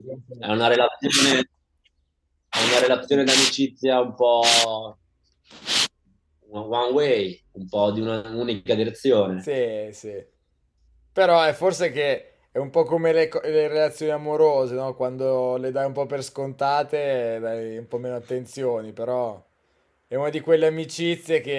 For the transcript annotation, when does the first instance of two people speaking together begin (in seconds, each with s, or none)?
none